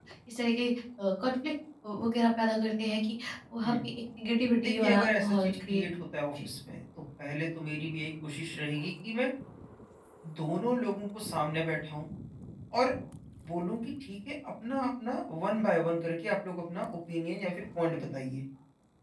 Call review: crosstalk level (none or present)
present